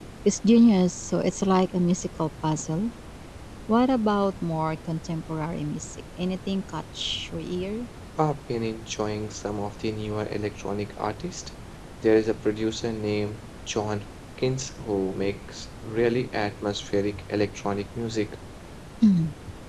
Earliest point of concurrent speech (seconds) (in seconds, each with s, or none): none